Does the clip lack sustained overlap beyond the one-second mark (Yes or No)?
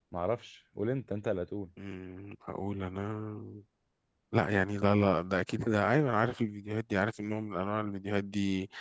Yes